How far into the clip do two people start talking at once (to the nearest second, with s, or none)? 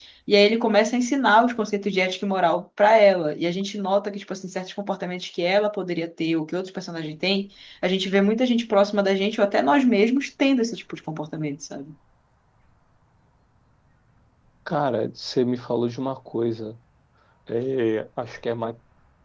none